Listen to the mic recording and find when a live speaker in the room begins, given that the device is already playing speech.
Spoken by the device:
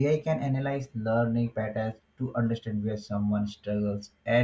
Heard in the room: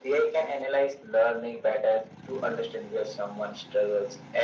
none

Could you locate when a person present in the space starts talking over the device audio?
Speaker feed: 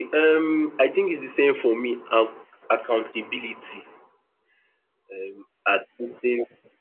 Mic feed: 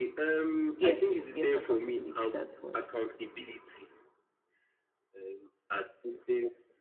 0.7 s

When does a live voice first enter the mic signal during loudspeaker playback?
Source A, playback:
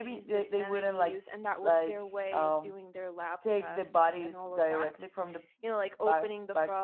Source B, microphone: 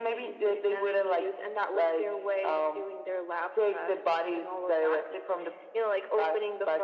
none

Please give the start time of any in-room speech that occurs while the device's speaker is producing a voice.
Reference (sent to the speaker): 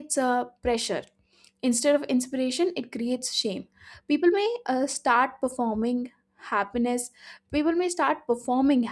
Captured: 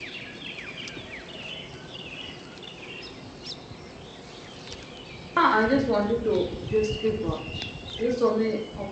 5.4 s

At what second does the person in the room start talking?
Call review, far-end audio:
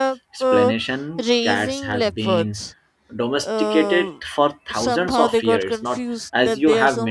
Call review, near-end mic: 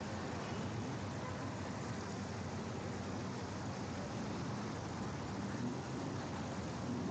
none

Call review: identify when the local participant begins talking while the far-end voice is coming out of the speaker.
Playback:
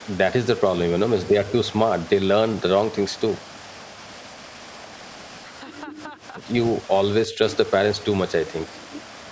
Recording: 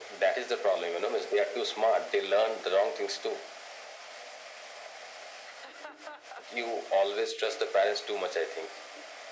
none

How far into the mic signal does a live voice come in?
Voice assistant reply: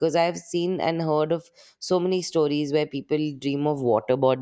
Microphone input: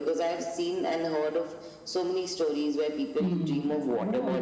3.2 s

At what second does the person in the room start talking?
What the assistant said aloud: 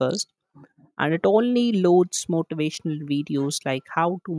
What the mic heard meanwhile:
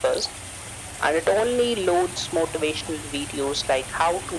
none

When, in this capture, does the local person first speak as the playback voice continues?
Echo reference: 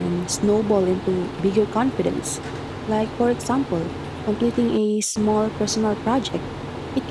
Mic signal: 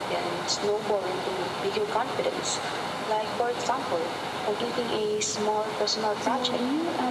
6.2 s

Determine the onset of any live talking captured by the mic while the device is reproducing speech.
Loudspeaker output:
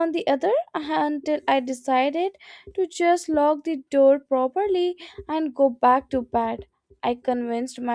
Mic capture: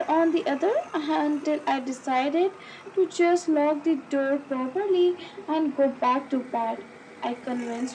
none

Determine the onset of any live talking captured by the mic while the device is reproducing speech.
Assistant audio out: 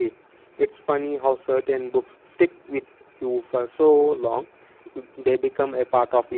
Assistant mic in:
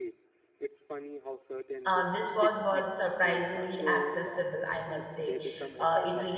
1.9 s

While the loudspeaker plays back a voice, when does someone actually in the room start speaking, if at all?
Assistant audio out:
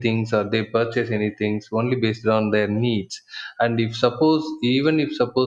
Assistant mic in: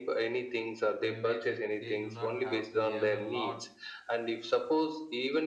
1.0 s

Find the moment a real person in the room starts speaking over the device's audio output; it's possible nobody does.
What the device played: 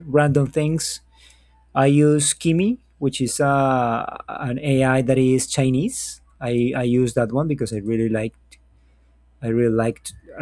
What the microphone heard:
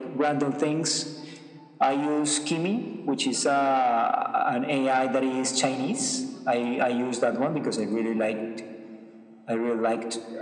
none

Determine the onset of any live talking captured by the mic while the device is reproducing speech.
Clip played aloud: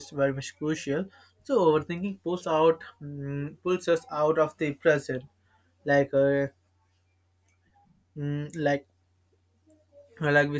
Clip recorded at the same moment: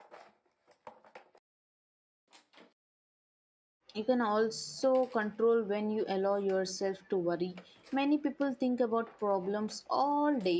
4.0 s

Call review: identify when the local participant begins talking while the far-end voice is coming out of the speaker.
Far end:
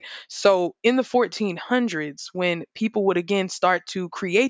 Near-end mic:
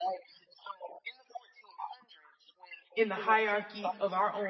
3.0 s

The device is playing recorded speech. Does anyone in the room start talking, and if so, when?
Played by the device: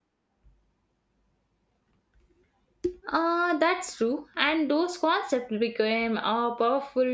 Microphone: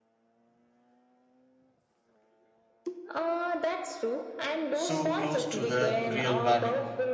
4.7 s

